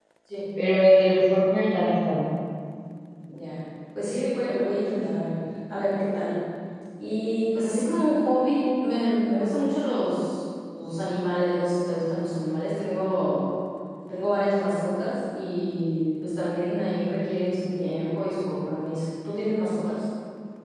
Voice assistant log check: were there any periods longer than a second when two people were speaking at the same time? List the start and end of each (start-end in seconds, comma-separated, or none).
none